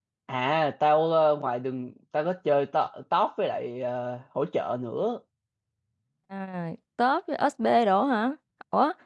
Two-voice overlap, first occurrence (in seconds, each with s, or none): none